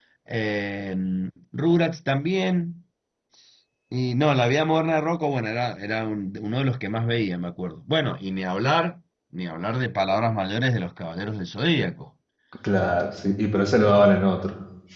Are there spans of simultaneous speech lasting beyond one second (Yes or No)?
No